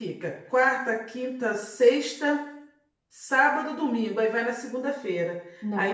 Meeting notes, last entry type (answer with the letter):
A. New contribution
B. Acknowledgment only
B